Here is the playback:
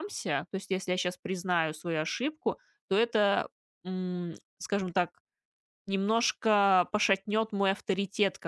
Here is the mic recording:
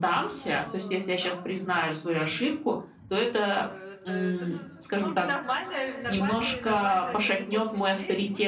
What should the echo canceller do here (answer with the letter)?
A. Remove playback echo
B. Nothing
A